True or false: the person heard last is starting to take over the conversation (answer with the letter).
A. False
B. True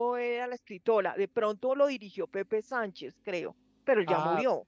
B